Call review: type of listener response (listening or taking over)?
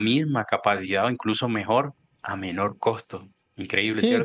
taking over